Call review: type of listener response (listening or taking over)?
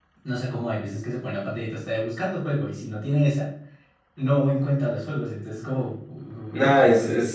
taking over